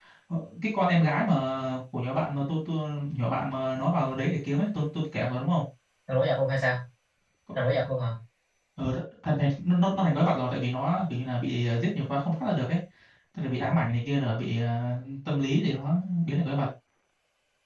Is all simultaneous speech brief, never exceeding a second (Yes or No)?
Yes